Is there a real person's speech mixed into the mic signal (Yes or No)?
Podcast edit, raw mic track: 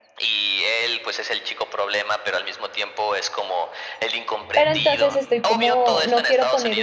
Yes